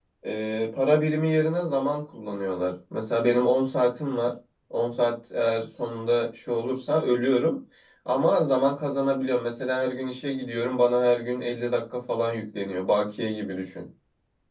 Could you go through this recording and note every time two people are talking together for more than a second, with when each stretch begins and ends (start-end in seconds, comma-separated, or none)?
none